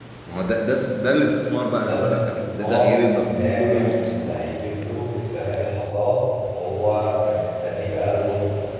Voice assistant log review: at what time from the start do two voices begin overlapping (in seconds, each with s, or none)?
1.9 s